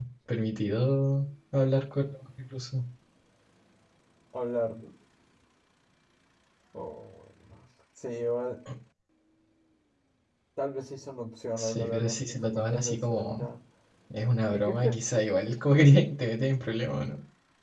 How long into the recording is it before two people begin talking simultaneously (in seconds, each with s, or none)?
11.6 s